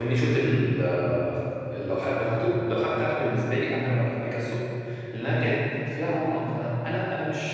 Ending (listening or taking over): listening